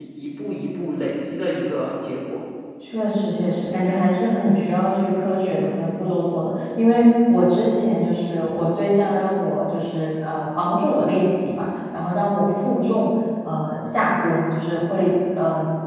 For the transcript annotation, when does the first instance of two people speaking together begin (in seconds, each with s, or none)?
none